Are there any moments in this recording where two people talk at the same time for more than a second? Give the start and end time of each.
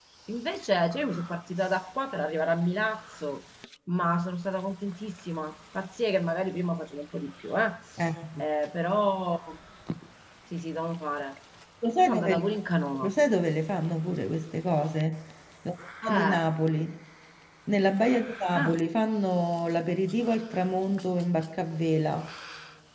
none

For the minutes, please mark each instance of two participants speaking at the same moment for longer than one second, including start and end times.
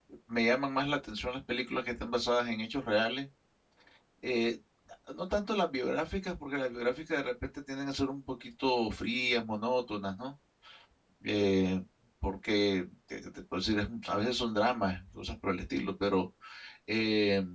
none

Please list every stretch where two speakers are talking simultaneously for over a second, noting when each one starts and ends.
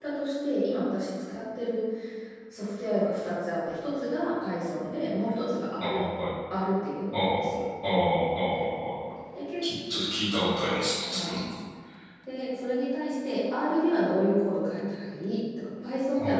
none

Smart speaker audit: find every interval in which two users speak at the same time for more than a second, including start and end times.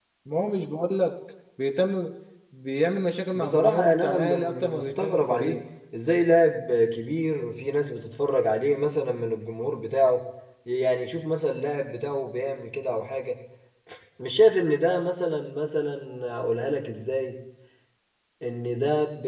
3.3-5.6

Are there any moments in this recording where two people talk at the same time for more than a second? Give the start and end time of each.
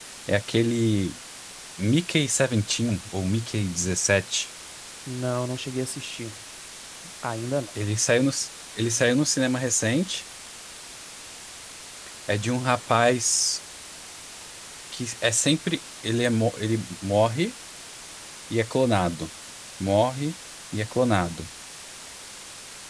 none

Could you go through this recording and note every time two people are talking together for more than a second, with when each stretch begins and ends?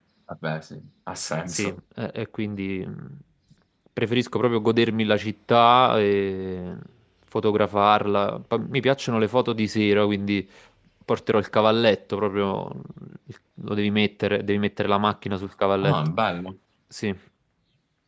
none

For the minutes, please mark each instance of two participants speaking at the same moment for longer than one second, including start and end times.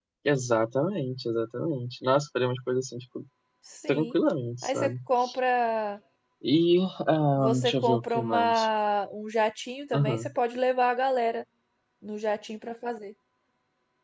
7.4-8.6

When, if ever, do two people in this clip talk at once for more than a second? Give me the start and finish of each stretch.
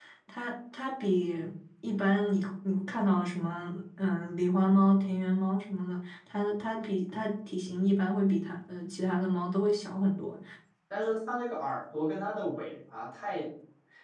none

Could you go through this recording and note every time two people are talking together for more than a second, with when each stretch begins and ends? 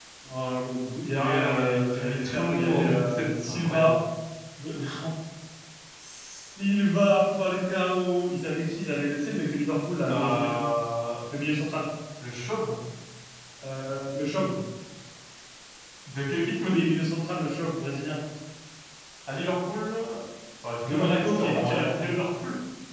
1.1-4.0, 20.8-22.1

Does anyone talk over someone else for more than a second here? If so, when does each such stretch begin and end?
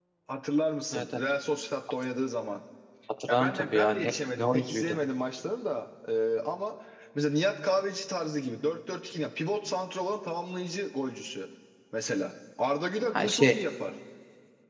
3.3-5.0

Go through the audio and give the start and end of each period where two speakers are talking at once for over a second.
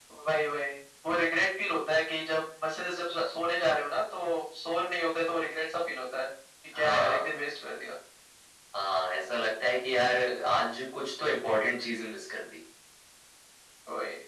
none

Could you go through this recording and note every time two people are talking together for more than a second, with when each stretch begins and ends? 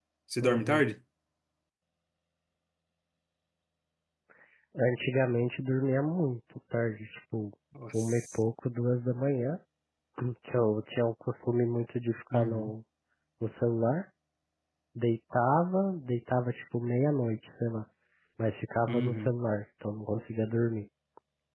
none

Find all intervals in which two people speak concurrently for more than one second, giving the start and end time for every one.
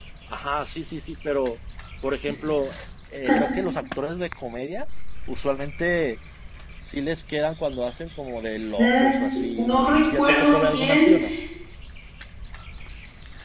9.6-11.1

